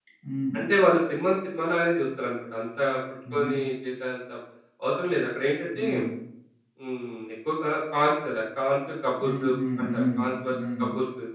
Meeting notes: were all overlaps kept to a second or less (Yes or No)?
Yes